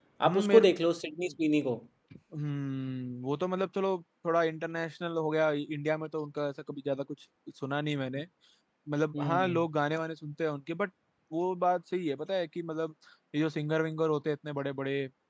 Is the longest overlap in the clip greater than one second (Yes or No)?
No